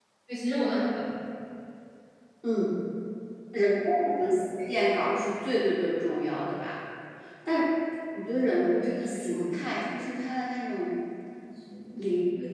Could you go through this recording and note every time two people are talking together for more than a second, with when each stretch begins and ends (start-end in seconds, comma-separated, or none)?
none